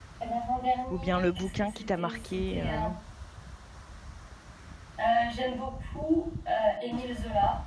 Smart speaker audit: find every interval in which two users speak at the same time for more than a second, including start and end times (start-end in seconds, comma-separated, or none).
0.9-2.9